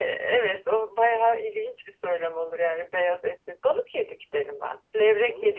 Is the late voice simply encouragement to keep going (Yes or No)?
Yes